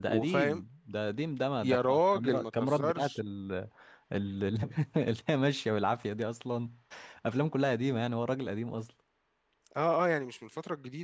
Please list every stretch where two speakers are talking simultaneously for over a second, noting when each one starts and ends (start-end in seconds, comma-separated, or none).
1.6-3.2